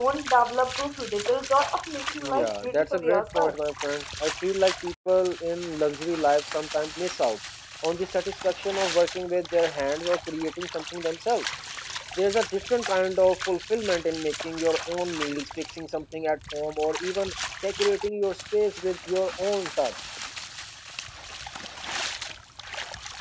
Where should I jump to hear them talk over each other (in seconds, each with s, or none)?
2.2 s